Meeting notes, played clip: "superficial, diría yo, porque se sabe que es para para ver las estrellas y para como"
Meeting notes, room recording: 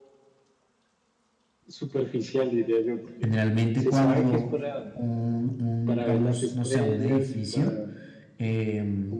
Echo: present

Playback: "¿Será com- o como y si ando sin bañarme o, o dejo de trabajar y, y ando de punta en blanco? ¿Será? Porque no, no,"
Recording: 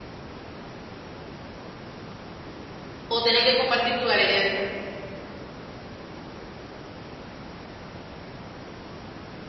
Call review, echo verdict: none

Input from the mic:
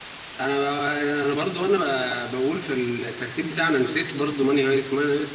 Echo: none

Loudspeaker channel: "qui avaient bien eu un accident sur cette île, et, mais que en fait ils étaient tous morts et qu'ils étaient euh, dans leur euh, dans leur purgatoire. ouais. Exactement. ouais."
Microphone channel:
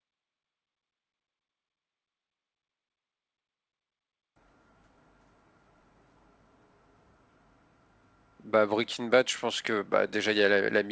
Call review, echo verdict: none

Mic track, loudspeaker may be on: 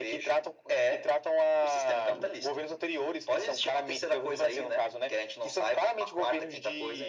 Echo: present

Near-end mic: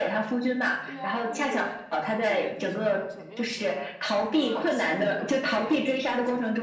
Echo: present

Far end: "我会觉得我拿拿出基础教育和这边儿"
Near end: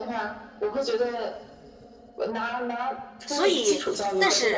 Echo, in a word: present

